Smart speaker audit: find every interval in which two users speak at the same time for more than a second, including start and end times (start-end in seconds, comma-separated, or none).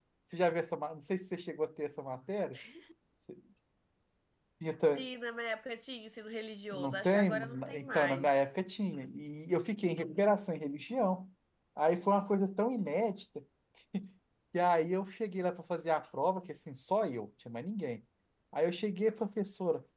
6.7-8.3